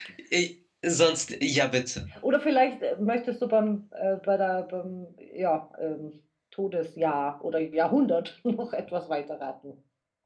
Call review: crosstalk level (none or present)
none